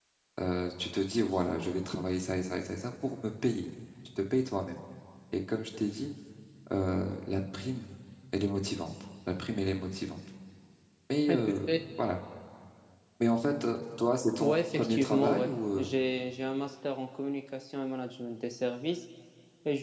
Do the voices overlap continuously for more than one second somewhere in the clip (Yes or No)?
Yes